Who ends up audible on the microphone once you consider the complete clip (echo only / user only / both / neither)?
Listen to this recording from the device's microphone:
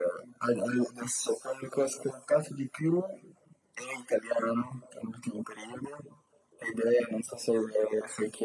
echo only